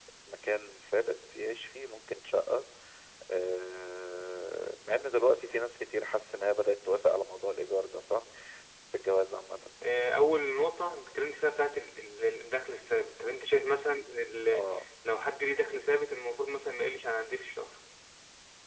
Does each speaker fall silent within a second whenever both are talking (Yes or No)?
Yes